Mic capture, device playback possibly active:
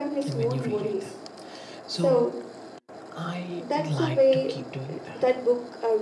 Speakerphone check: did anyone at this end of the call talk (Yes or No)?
Yes